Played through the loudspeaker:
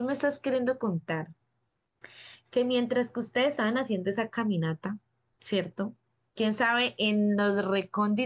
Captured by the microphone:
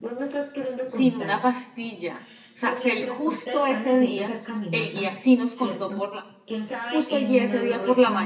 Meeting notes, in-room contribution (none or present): present